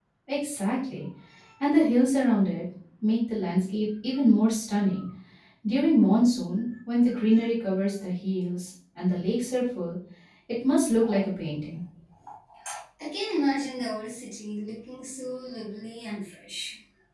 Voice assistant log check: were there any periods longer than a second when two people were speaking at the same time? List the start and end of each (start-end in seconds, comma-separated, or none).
none